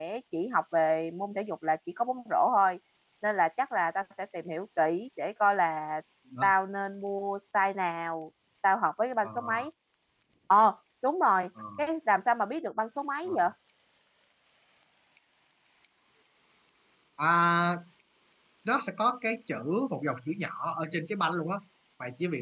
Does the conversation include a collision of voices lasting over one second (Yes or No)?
No